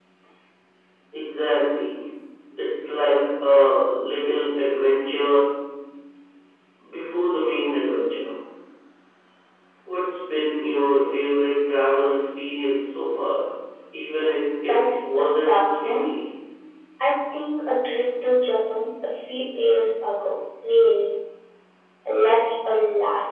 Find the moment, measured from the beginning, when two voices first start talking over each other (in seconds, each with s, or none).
14.7 s